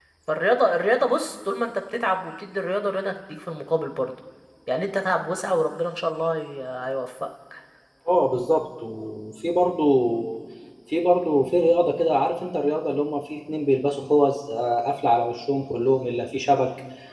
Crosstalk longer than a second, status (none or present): none